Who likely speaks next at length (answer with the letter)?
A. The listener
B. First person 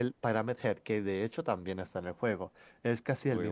B